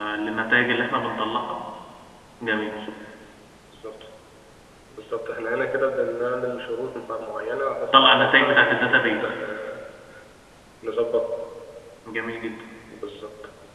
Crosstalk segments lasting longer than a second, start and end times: 7.9-9.3

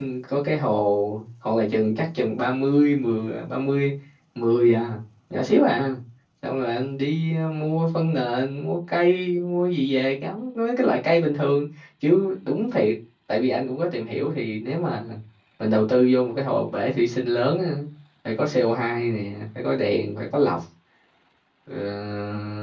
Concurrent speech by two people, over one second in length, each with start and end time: none

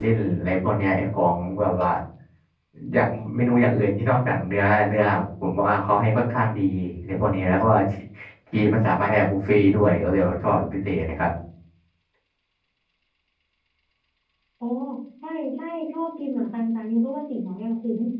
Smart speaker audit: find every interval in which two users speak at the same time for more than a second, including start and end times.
none

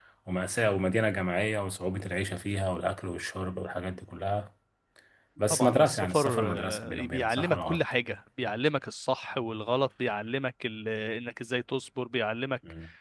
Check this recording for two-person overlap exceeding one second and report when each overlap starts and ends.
5.5-7.8

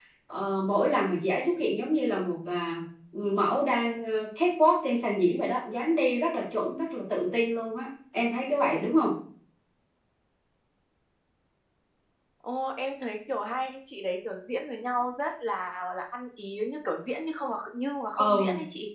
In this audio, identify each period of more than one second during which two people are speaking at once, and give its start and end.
none

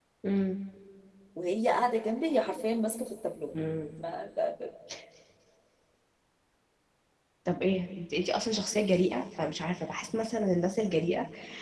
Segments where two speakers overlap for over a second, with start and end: none

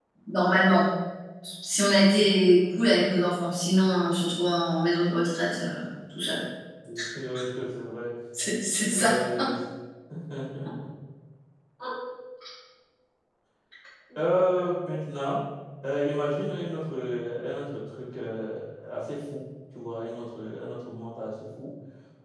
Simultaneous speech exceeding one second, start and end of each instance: none

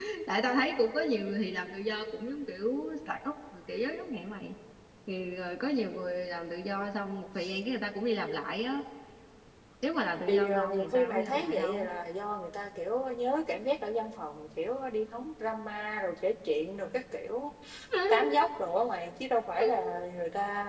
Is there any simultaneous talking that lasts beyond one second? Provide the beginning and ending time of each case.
10.3-11.9

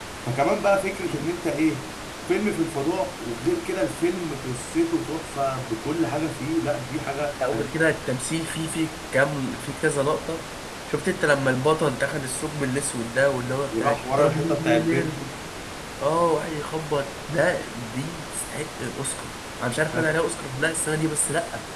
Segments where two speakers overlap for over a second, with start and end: 13.7-15.2

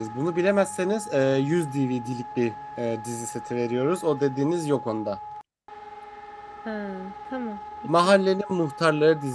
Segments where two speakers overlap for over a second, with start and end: none

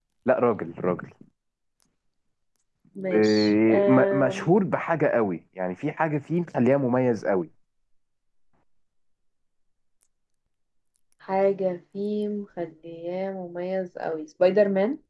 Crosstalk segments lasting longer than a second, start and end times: 3.1-4.5

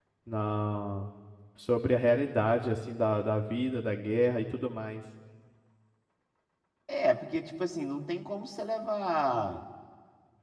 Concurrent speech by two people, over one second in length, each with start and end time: none

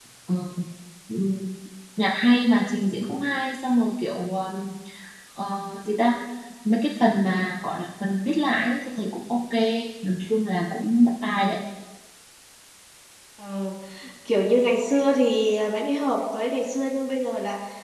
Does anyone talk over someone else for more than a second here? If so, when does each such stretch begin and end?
none

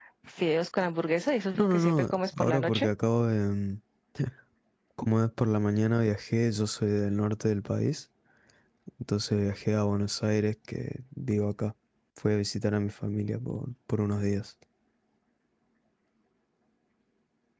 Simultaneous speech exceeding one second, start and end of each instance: 1.6-2.9

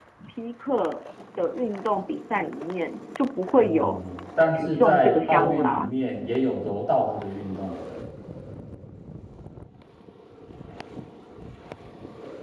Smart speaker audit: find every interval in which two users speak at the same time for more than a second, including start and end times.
4.5-5.9

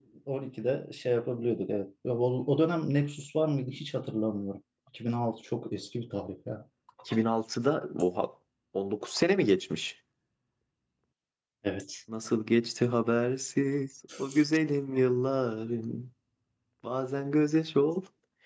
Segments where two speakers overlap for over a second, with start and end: none

